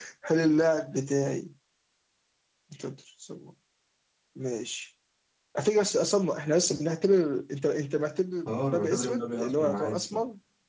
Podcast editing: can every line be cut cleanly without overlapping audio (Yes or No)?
No